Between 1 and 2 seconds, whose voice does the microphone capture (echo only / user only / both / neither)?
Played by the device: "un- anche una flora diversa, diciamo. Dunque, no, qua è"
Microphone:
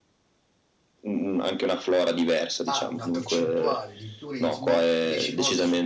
echo only